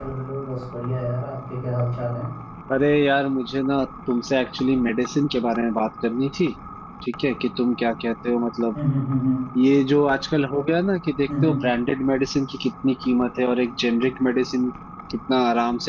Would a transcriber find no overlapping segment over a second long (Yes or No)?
Yes